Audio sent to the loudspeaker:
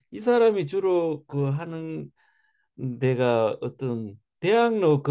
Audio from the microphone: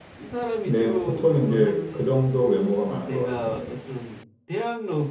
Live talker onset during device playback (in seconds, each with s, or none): 0.6 s